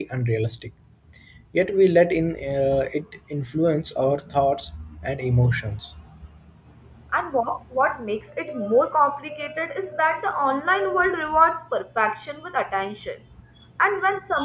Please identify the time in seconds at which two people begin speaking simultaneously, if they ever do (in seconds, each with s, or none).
none